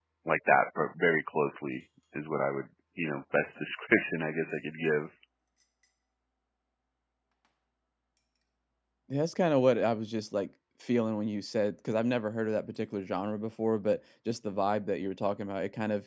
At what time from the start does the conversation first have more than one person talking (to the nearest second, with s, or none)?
none